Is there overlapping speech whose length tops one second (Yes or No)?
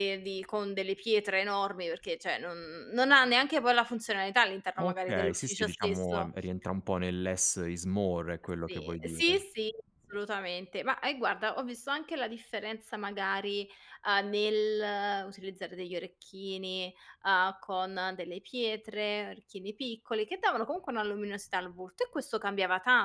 Yes